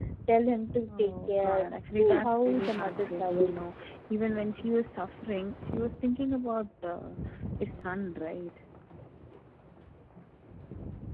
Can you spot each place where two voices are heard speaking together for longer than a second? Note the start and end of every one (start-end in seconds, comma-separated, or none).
1.0-3.6